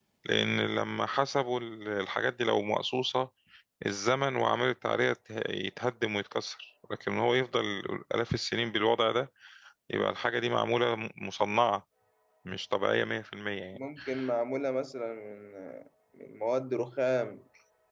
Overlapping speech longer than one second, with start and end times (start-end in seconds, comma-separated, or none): none